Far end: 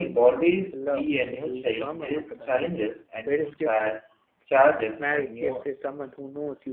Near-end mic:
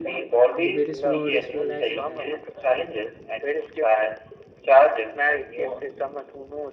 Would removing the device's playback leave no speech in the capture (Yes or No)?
No